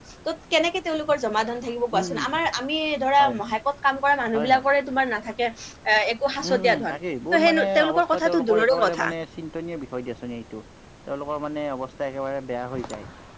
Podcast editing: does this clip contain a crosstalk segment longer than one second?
Yes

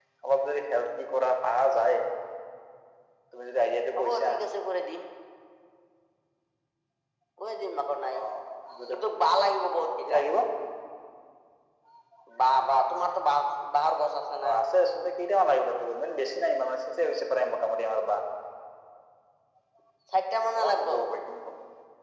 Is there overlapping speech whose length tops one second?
No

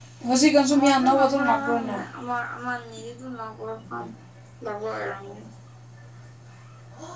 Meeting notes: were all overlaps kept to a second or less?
No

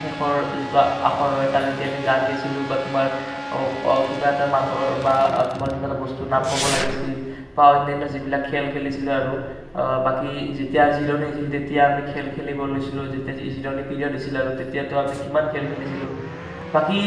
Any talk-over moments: No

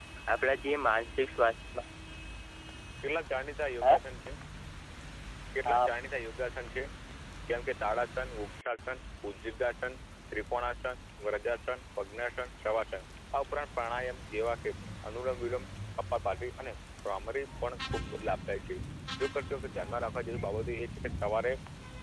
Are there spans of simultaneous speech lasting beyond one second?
No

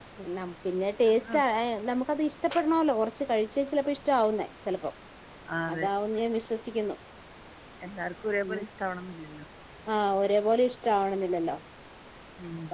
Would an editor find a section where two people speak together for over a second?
No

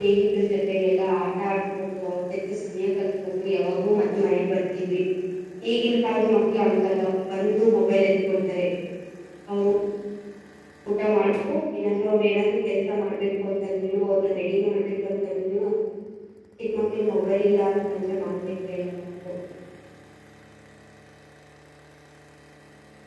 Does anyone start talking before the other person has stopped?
No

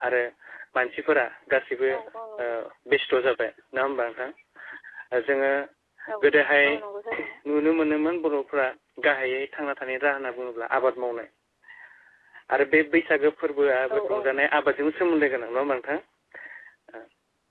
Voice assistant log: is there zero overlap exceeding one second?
Yes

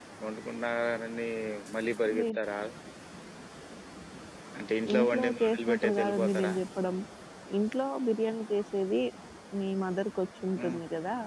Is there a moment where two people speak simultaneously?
Yes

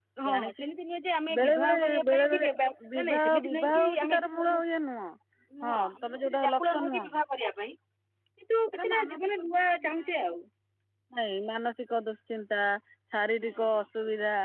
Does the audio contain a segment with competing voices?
Yes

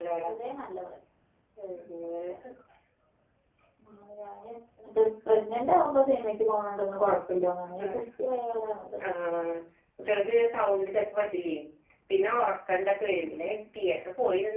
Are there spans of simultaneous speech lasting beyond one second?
No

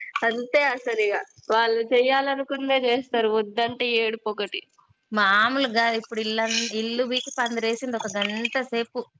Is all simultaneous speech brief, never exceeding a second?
Yes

